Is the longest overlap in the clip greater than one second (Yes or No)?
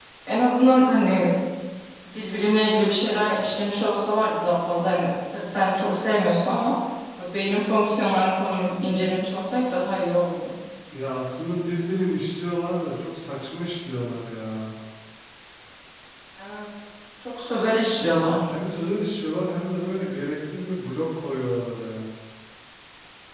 No